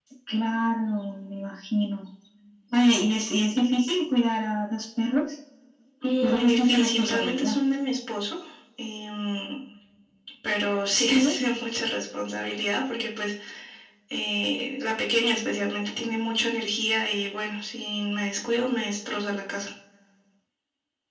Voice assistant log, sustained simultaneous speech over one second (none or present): present